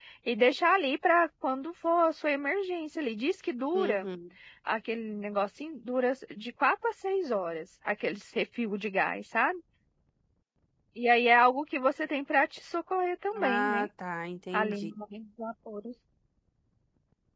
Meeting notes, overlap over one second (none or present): none